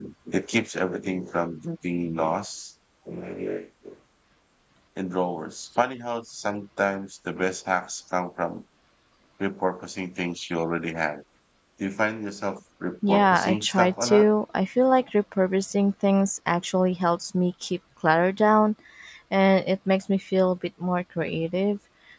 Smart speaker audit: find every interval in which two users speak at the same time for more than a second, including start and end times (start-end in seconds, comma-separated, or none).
13.1-14.3